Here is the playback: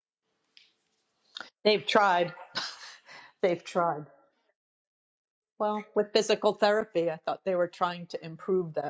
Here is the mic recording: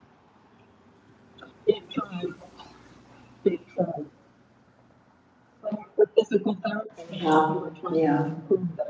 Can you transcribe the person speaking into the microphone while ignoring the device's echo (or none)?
Yeah. Yeah.